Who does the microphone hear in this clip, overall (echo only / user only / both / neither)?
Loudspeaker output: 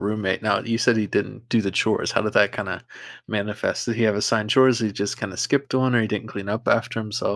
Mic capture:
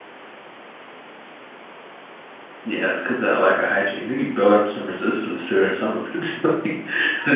user only